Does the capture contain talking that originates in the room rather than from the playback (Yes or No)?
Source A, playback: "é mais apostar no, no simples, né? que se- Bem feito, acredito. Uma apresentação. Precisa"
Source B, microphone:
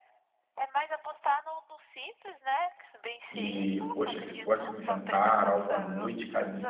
Yes